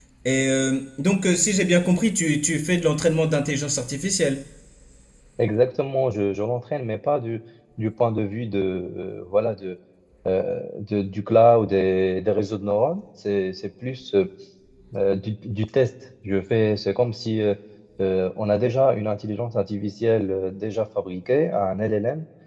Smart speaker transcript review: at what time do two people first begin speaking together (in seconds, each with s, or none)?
none